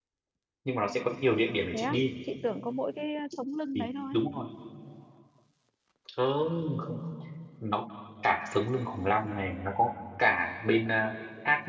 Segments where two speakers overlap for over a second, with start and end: none

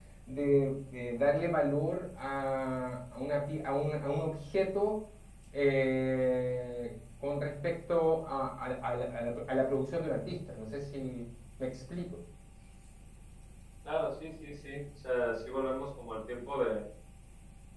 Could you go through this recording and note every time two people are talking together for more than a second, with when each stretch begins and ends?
none

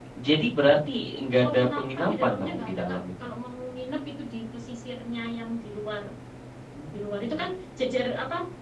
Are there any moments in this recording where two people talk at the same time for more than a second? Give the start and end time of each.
1.4-3.0

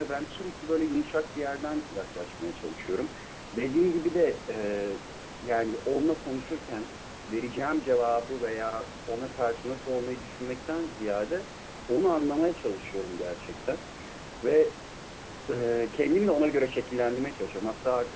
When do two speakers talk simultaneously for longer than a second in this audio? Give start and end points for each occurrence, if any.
none

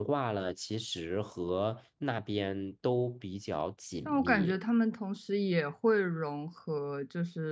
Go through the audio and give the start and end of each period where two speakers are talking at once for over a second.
none

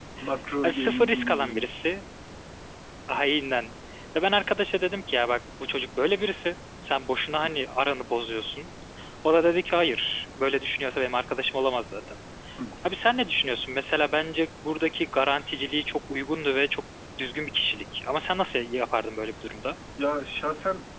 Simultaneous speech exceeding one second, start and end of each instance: 0.6-1.9

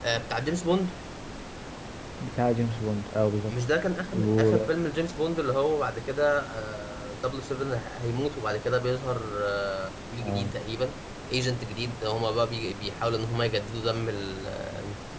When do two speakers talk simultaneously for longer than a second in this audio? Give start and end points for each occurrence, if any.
none

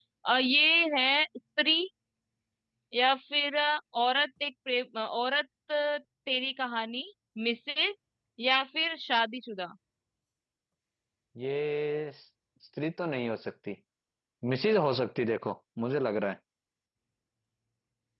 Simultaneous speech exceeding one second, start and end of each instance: none

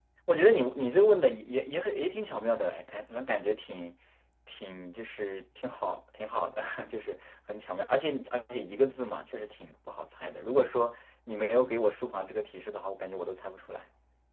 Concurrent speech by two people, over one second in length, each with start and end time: none

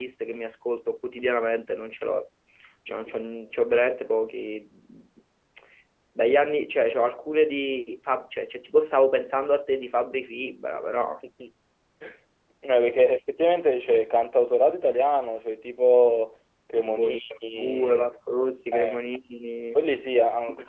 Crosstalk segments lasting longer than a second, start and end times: 16.9-18.1

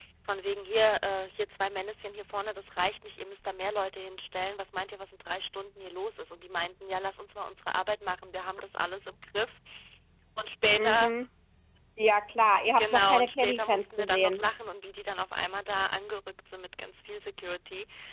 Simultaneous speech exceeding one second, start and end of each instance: 12.8-14.4

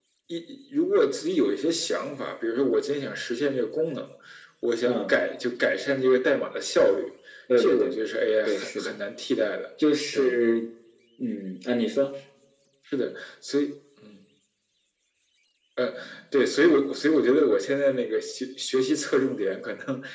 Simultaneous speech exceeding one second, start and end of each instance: 7.6-9.0

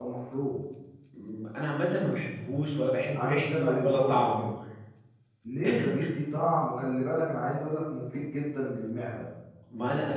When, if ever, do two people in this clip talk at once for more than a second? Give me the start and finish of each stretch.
3.1-4.5

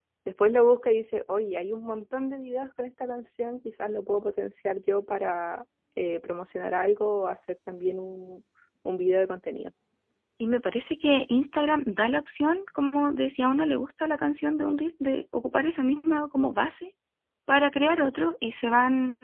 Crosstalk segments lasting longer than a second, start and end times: none

